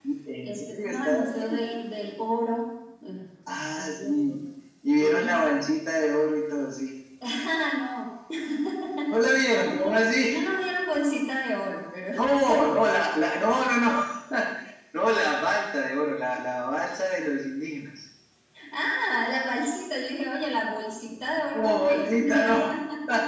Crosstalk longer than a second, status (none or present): present